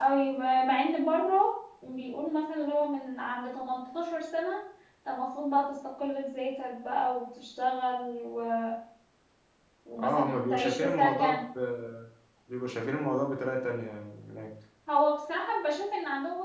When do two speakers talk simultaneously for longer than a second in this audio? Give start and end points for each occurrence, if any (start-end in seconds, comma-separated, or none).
10.0-11.4